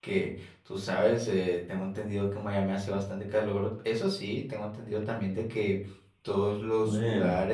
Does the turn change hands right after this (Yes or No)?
No